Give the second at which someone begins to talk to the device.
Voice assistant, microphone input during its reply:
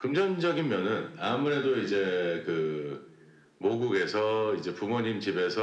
none

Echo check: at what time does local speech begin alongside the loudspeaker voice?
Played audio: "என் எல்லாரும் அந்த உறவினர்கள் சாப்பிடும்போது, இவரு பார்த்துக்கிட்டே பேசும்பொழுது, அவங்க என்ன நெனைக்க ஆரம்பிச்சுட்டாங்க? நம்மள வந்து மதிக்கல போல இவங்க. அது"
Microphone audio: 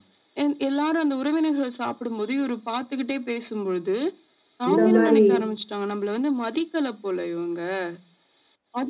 4.7 s

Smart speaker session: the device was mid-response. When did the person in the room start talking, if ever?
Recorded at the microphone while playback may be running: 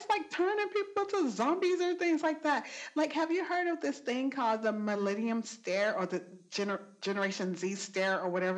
none

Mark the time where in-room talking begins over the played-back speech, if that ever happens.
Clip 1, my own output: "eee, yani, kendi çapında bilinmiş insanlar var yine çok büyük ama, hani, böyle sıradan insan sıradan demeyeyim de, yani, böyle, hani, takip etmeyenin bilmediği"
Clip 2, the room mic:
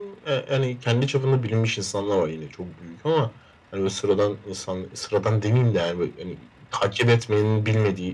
none

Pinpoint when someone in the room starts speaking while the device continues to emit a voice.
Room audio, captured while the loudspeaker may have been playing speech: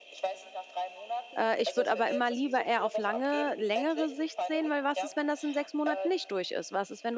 1.4 s

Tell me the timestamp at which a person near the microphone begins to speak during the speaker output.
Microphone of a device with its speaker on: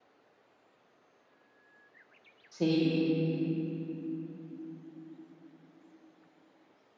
2.5 s

